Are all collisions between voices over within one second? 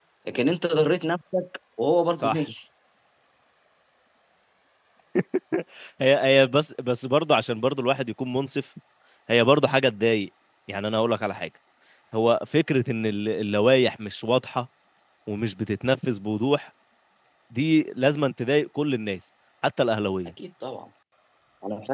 Yes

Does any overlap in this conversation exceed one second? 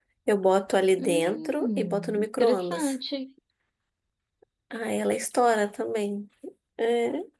Yes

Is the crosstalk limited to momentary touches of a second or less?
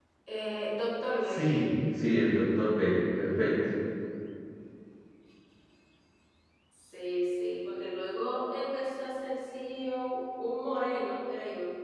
Yes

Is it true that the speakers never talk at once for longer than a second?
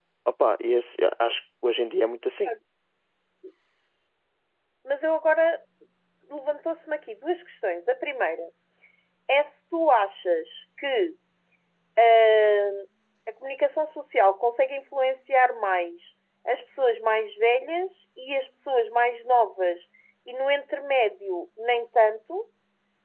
Yes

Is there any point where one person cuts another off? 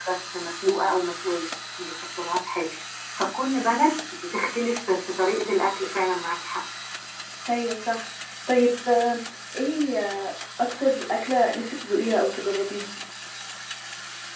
No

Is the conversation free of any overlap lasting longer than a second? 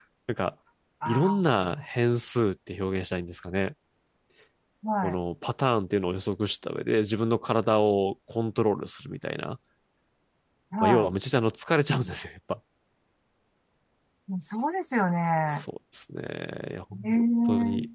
Yes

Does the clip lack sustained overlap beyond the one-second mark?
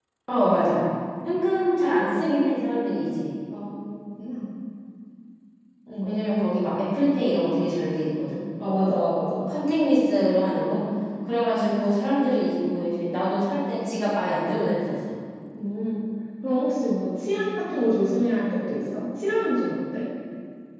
Yes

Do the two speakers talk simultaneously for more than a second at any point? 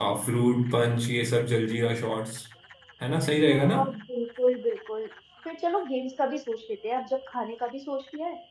No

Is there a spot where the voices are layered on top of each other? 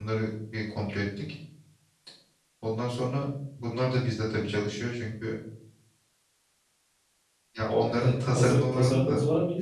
Yes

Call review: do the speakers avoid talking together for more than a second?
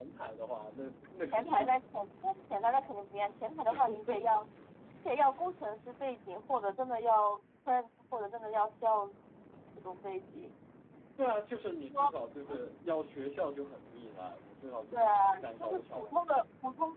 No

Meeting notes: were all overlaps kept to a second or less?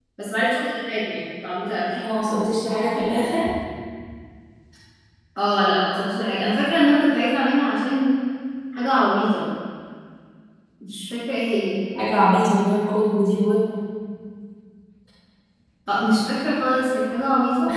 Yes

